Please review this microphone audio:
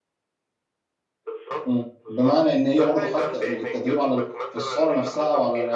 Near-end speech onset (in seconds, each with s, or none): 1.6 s